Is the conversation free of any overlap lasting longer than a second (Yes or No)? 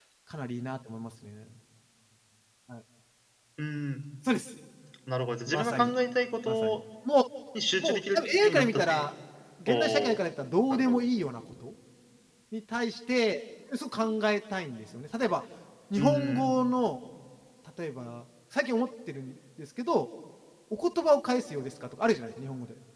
No